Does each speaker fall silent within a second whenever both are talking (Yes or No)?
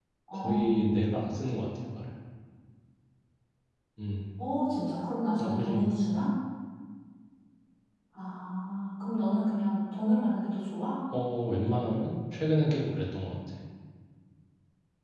Yes